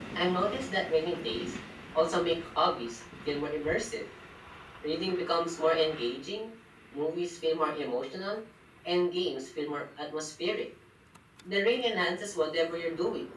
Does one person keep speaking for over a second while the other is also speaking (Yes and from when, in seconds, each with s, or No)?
No